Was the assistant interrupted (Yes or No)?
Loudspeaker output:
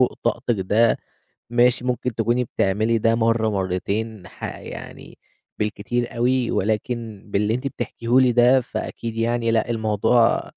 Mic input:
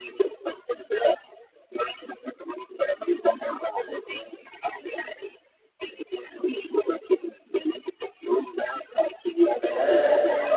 Yes